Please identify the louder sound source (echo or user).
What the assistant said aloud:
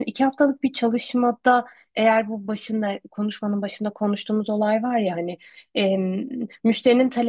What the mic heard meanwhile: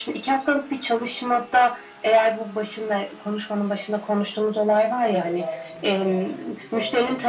echo